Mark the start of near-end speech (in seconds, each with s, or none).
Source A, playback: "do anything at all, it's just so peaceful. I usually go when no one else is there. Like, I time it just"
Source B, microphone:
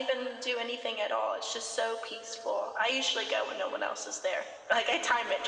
none